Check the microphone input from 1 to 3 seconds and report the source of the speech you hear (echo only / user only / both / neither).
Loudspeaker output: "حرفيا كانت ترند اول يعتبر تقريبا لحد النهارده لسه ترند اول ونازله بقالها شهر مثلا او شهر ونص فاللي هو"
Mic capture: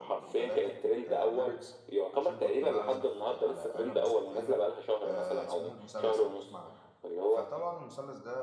both